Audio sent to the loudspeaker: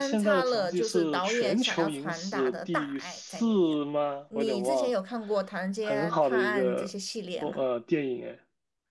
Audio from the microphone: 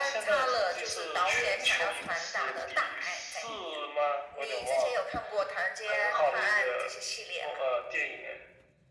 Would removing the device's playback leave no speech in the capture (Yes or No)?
Yes